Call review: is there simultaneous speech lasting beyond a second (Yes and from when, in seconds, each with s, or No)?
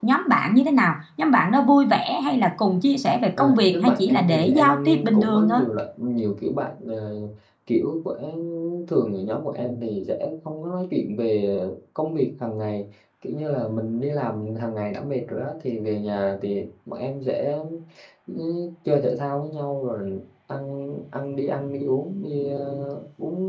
Yes, from 3.4 s